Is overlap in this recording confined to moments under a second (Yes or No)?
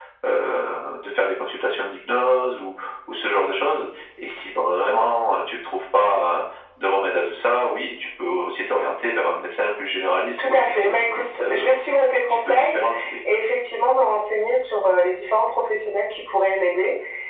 No